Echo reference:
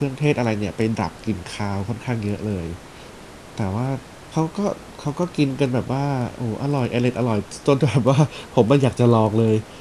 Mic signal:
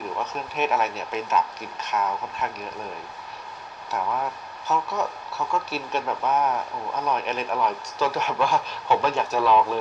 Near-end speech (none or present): none